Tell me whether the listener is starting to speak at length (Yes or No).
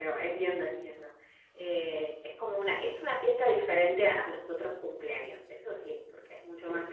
No